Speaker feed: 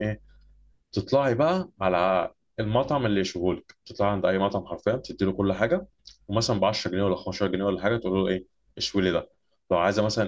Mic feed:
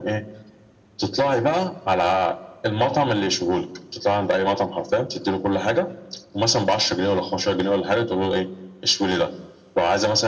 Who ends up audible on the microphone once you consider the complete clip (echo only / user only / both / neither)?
echo only